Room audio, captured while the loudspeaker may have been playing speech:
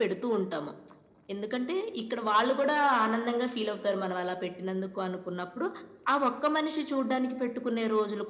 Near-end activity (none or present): none